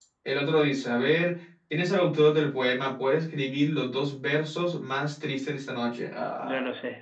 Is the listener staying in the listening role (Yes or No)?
No